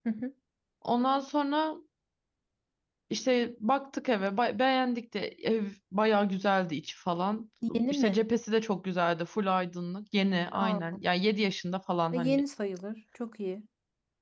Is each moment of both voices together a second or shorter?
Yes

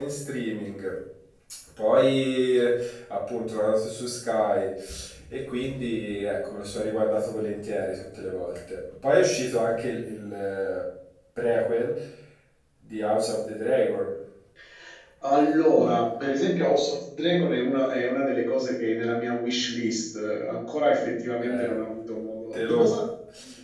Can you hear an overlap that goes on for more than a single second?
No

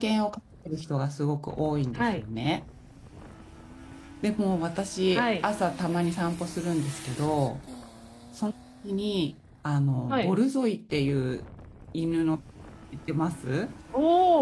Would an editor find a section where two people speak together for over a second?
No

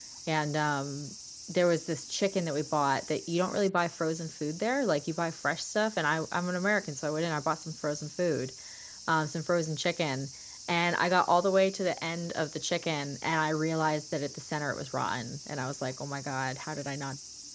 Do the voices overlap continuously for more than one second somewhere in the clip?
No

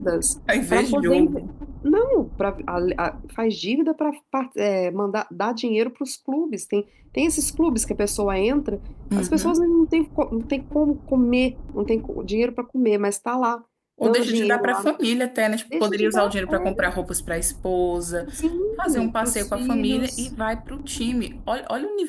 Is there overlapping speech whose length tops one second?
Yes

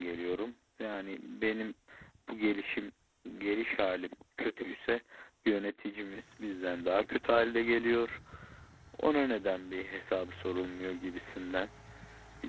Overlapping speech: No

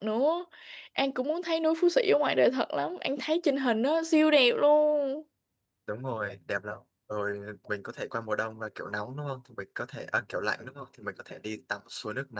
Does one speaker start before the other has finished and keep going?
No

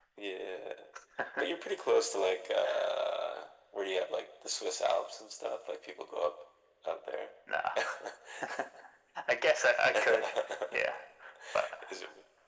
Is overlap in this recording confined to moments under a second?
Yes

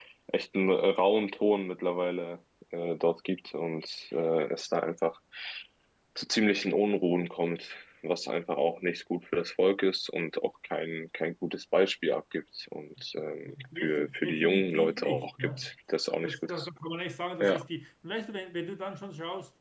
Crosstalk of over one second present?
Yes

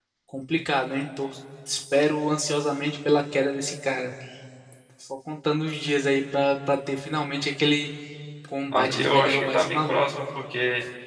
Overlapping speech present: Yes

